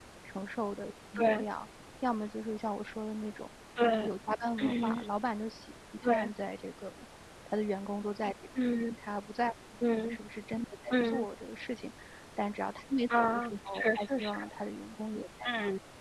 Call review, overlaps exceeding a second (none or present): present